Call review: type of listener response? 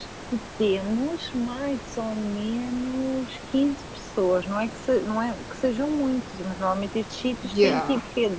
listening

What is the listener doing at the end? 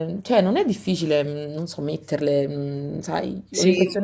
taking over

